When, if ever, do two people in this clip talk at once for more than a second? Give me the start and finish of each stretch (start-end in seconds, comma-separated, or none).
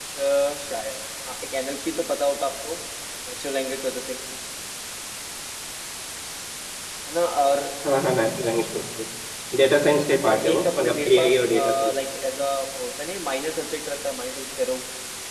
10.0-11.9